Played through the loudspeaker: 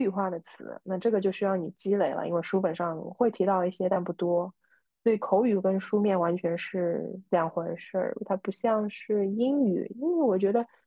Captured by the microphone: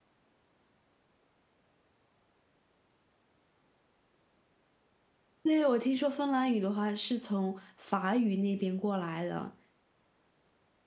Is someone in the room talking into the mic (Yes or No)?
Yes